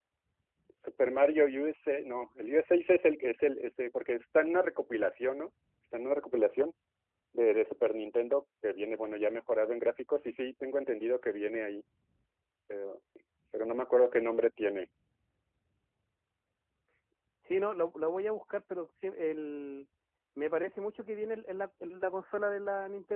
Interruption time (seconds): none

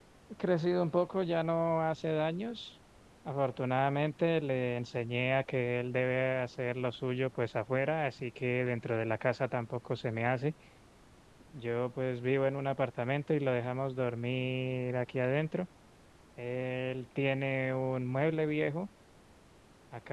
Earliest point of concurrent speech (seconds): none

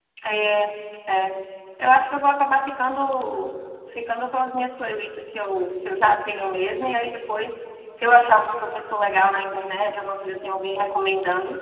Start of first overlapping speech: none

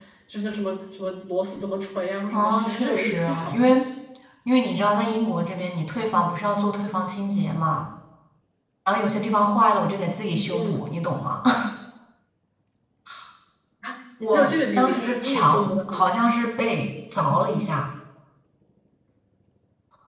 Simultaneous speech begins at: 2.3 s

